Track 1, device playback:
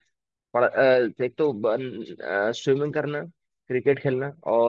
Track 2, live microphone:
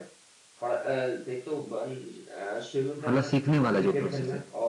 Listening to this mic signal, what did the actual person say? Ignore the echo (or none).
मतलब सीखने वाला जो प्रोसेस है